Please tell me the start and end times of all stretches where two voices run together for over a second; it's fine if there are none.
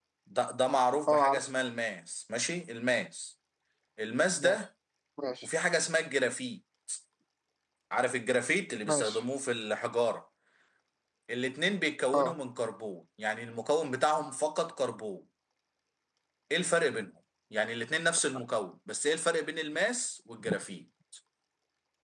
none

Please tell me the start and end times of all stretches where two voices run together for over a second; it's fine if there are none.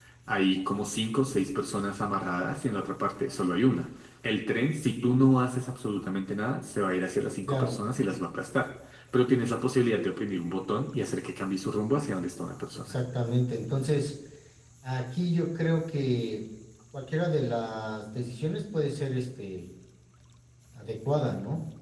none

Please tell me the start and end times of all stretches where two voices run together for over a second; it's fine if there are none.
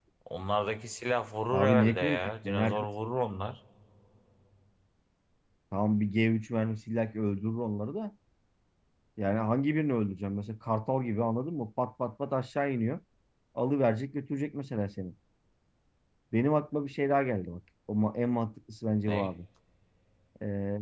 1.5-2.9

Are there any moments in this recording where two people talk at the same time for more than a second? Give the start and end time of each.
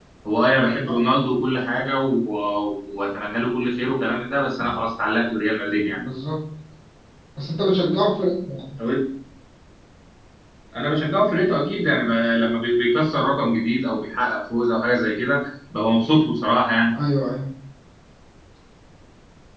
none

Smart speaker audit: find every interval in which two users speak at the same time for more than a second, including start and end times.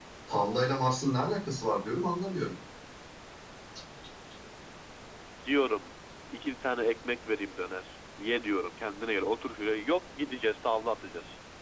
none

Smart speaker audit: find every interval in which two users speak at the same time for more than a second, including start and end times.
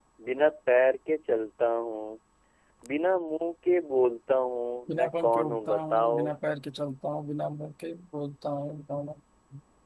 4.9-6.2

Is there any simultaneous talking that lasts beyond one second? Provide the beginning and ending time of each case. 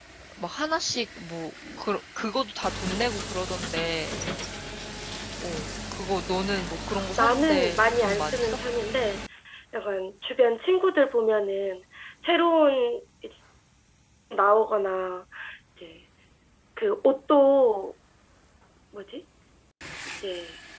7.2-8.6

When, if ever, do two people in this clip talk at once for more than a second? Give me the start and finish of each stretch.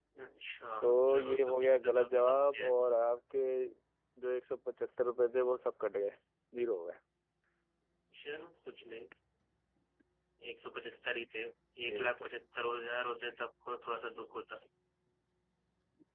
1.1-2.7

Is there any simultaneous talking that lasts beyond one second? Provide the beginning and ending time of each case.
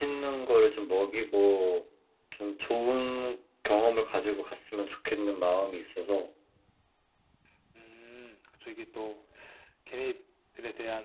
none

